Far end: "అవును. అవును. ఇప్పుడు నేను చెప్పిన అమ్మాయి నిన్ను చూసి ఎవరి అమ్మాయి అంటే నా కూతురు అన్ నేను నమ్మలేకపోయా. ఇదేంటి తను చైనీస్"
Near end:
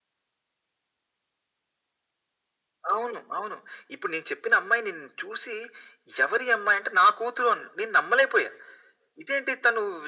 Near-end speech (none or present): none